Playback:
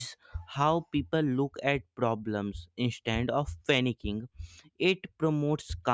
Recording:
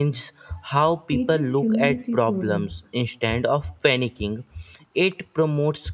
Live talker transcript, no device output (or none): teaches humility through risk.